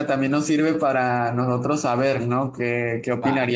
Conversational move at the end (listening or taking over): listening